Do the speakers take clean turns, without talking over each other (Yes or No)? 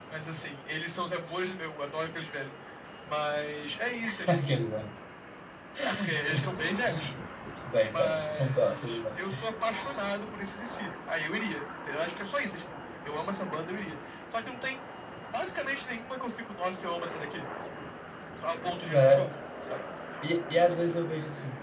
No